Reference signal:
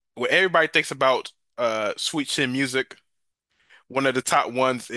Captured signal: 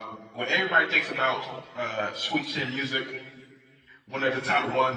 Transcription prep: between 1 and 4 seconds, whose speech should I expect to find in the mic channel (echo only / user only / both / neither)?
echo only